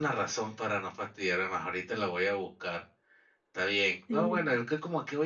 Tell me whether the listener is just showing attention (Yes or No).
Yes